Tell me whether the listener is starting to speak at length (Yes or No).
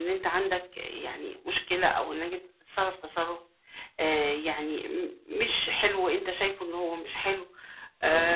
No